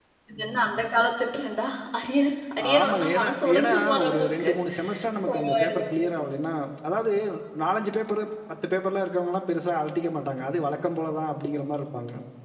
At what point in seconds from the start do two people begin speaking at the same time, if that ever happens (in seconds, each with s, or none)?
2.6 s